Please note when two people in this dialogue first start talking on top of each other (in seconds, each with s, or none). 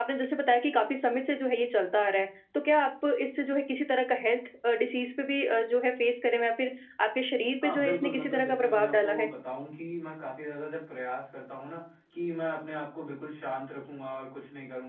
7.6 s